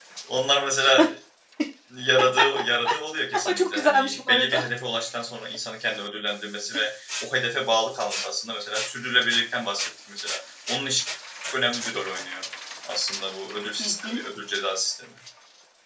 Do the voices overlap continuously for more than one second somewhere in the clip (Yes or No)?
Yes